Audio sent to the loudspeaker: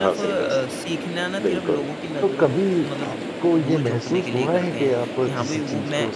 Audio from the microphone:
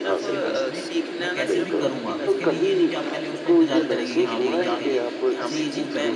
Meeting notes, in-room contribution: present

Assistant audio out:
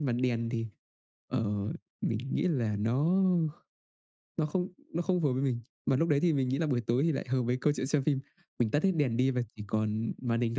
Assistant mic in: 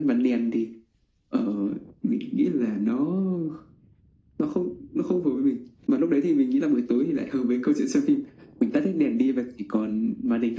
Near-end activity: none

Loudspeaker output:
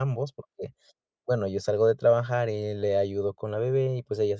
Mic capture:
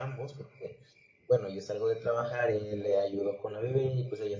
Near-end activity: none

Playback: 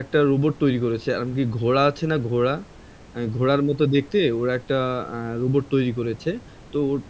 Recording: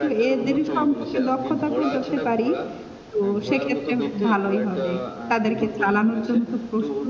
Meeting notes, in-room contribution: present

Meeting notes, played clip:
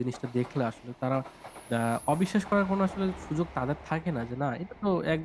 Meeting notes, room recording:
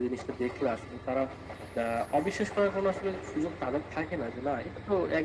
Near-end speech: none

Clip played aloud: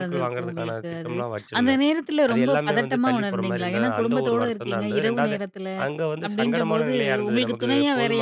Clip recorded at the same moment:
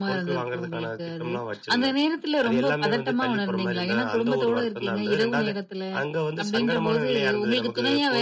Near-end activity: none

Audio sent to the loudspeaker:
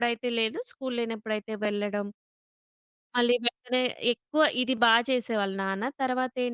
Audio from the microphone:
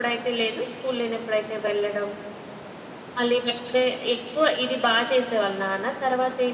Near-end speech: none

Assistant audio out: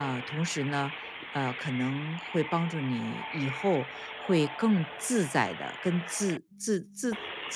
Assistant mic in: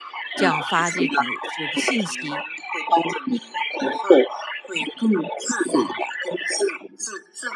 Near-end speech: present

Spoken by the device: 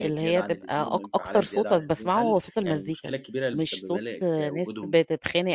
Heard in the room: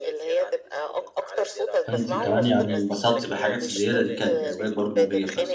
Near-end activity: present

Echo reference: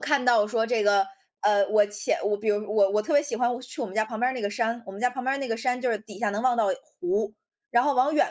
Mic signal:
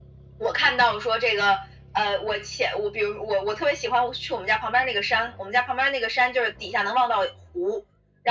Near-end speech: none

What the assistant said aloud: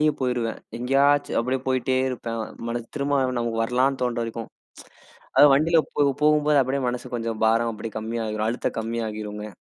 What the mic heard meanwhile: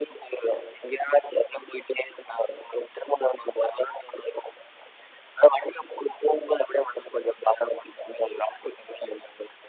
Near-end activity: none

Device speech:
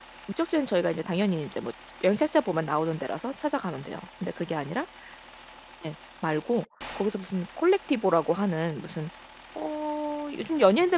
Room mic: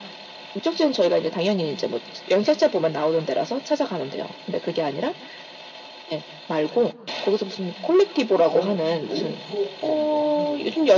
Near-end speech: present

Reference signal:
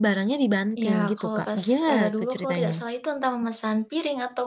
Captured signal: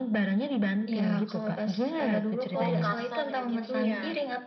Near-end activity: present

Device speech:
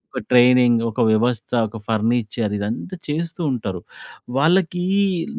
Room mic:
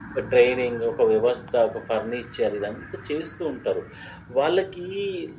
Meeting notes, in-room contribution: none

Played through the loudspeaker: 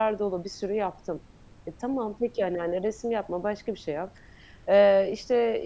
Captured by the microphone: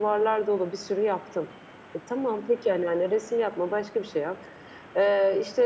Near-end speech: none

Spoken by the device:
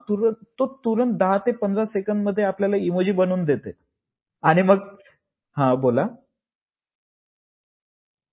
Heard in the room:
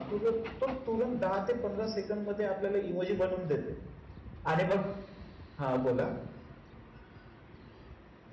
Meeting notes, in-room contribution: none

